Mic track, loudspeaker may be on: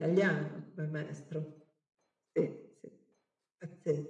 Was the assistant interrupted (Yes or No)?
No